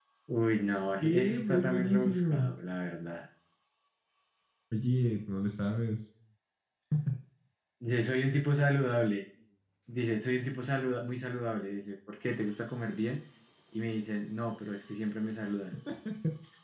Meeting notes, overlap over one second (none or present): present